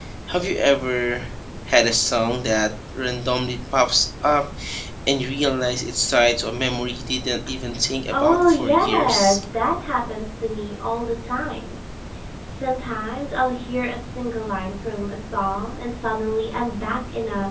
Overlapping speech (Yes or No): Yes